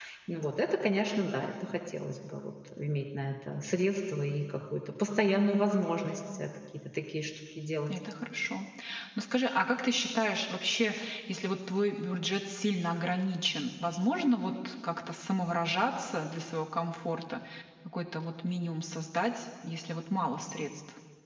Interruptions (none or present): none